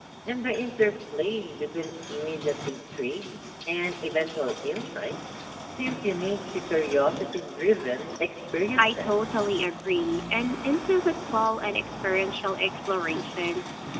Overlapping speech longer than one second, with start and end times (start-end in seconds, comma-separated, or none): none